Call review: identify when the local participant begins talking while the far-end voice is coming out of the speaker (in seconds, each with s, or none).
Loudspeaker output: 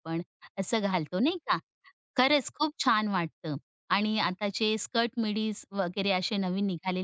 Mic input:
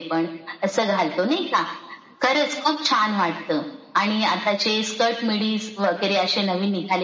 none